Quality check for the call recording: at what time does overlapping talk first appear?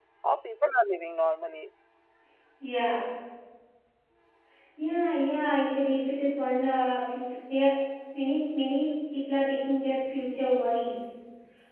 none

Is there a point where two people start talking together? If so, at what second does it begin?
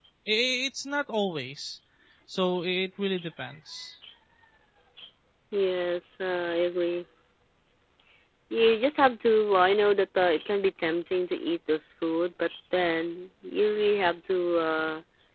none

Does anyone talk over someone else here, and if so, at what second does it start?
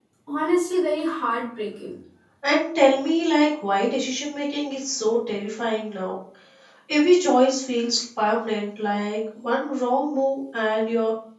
none

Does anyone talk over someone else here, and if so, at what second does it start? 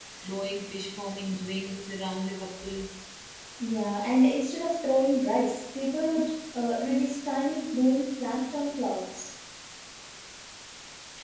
none

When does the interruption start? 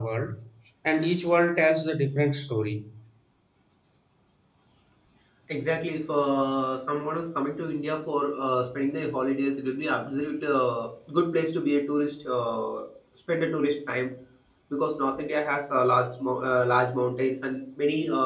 none

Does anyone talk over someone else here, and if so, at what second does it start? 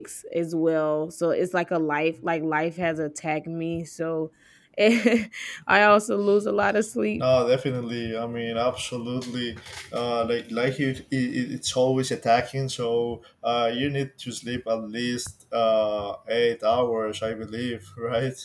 none

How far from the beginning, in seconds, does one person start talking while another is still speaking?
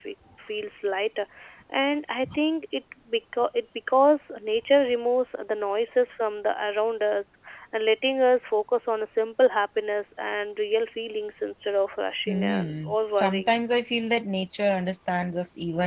12.3 s

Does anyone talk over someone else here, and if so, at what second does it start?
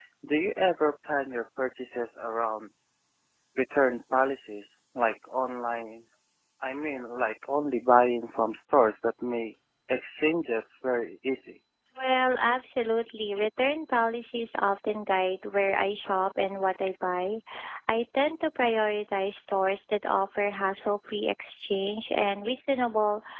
none

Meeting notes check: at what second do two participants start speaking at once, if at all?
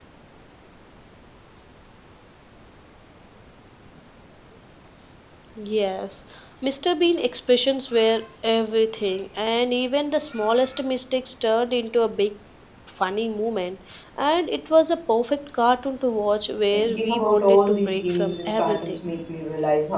16.7 s

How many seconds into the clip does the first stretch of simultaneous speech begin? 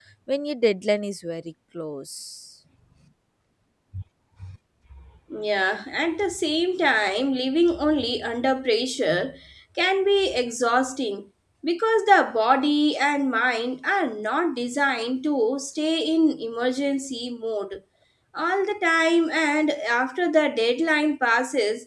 none

